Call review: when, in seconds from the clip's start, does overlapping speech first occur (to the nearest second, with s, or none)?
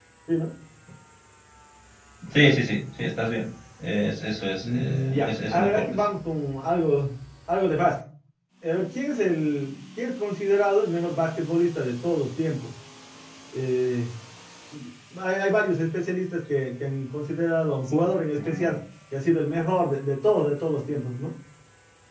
5 s